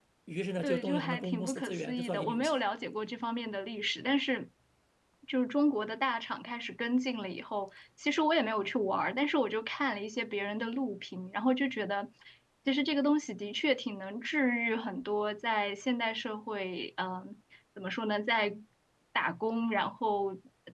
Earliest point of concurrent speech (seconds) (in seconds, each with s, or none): 0.6 s